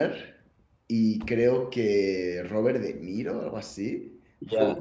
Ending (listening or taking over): taking over